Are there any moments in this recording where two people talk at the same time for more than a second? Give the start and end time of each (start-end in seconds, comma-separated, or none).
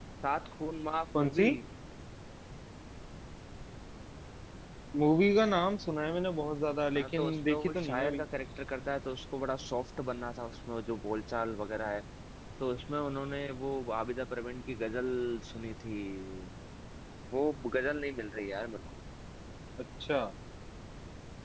7.0-8.2